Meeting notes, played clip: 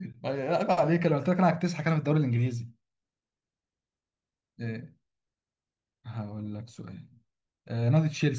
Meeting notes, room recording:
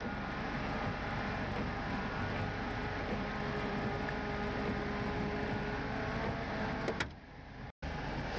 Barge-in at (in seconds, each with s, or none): none